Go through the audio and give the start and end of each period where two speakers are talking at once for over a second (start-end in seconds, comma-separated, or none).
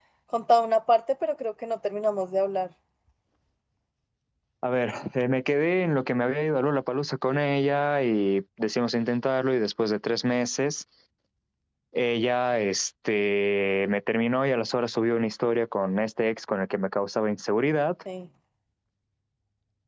none